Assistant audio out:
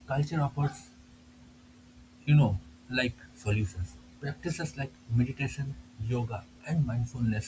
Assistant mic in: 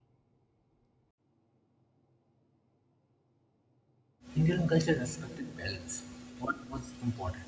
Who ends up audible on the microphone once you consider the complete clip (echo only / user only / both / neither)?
user only